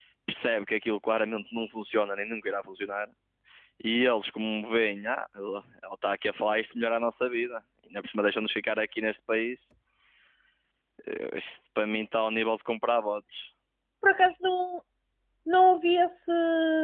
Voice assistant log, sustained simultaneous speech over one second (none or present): none